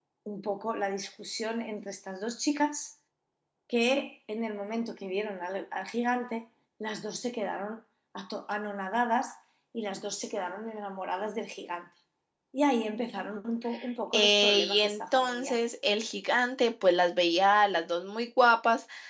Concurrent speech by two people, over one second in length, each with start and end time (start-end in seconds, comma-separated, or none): 14.1-15.6